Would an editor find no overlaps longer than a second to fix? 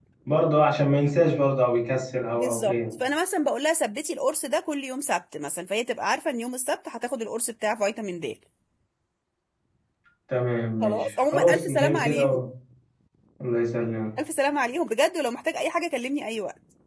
No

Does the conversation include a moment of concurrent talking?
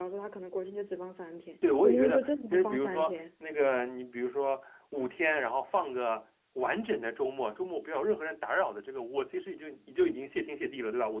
Yes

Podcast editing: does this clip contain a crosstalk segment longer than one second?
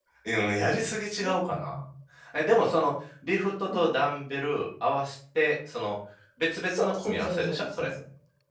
Yes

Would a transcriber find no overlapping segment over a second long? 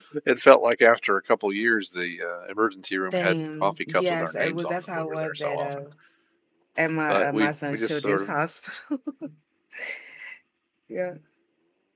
No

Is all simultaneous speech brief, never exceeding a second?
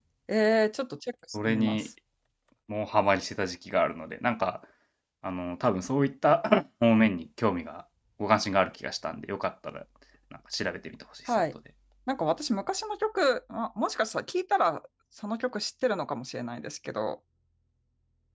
Yes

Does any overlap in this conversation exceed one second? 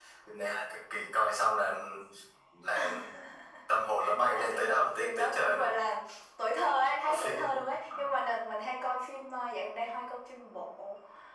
Yes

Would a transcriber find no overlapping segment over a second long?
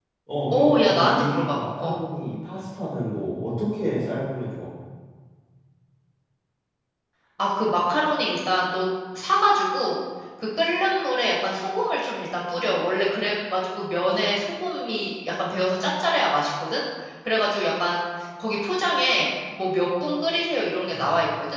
No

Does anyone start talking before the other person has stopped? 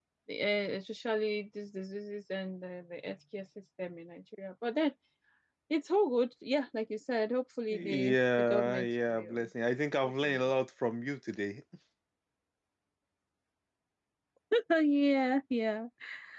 Yes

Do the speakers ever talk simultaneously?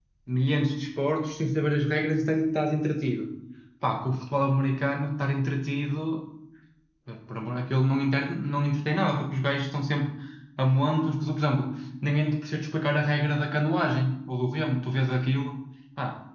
No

